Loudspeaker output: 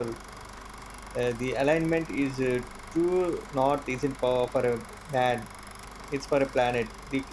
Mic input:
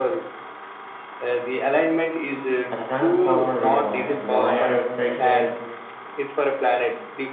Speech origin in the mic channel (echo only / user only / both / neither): both